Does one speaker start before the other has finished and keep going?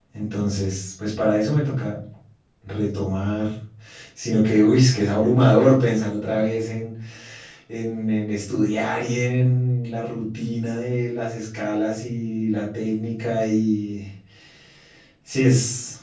No

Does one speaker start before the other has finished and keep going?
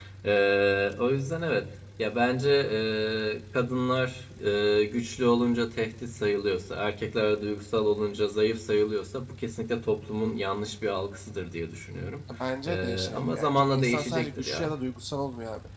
Yes, from 12.7 s

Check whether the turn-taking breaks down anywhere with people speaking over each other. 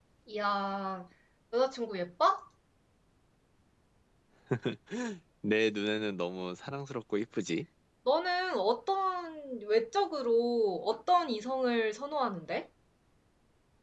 No

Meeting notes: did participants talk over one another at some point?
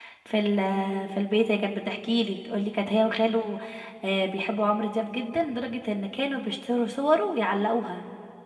No

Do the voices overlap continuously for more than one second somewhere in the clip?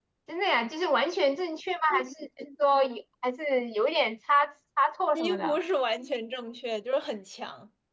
No

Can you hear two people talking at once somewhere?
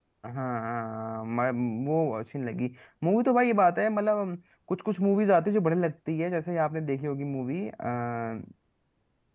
No

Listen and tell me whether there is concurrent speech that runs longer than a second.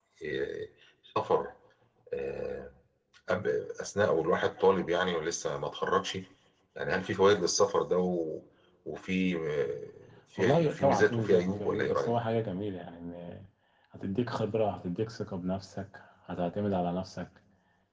Yes, from 10.4 s

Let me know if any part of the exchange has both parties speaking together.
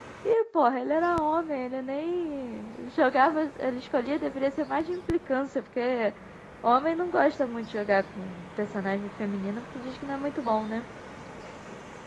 No

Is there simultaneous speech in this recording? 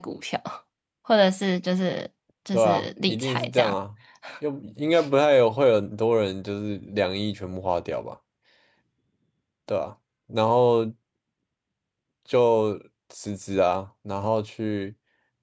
Yes, from 2.5 s

